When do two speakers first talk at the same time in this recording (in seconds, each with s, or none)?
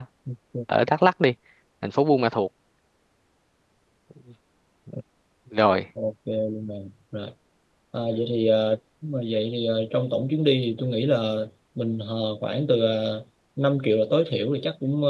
none